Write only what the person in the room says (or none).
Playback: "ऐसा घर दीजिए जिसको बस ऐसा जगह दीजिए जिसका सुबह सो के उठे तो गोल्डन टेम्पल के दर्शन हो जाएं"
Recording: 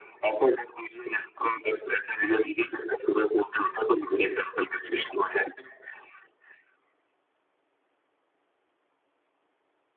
none